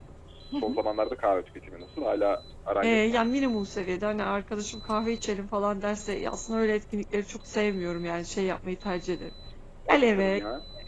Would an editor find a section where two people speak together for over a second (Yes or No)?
No